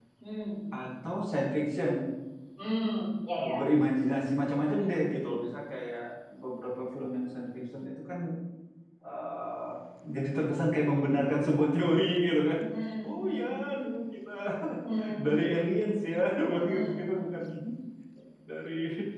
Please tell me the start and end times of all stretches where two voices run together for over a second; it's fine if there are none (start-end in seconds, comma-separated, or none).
none